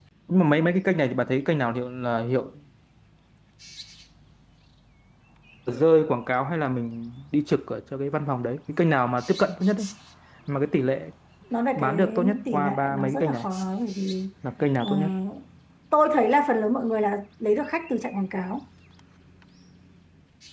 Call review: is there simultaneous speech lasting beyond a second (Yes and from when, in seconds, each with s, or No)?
Yes, from 11.8 s